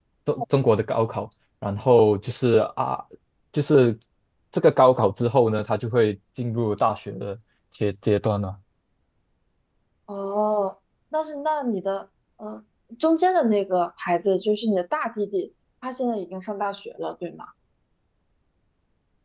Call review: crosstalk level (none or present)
none